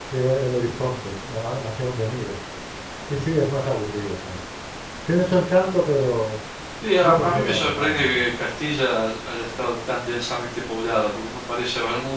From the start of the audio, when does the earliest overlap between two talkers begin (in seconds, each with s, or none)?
7.0 s